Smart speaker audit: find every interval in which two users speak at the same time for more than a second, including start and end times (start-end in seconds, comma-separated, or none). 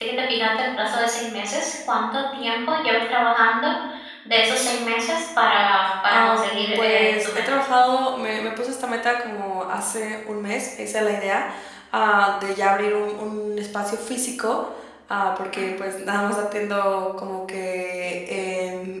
6.1-7.6